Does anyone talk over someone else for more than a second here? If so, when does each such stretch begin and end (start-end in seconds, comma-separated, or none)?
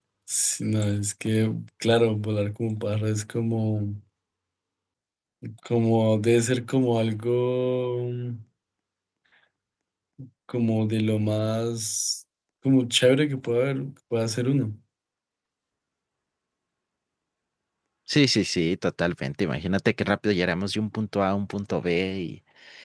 none